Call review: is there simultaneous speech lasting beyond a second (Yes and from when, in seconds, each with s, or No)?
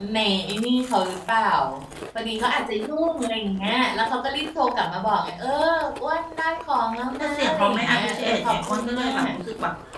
Yes, from 7.2 s